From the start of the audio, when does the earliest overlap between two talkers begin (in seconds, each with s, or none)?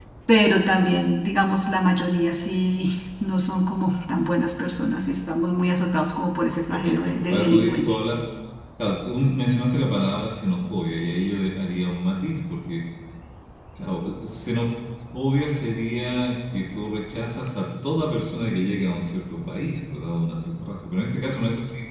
6.7 s